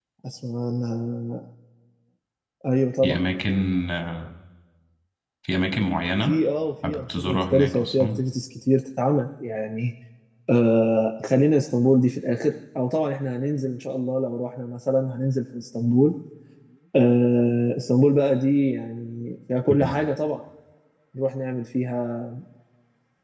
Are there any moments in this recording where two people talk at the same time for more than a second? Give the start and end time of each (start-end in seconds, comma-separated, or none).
6.8-8.1